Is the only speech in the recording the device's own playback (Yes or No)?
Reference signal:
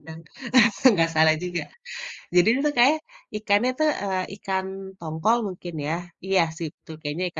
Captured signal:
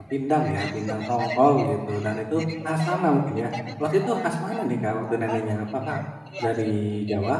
No